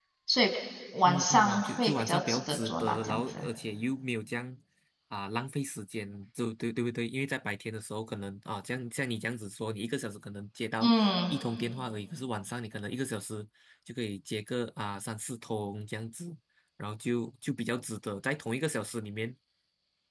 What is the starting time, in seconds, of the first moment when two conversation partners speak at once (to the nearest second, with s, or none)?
1 s